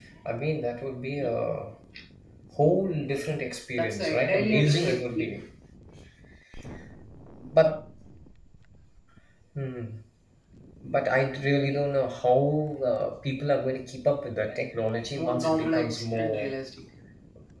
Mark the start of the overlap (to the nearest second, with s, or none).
4 s